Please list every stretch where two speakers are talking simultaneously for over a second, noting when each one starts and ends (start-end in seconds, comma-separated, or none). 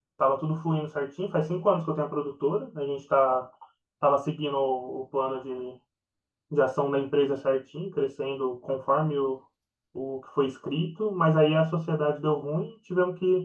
none